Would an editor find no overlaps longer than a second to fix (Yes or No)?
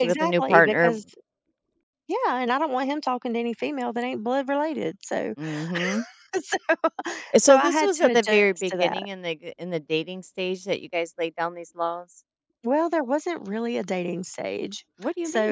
No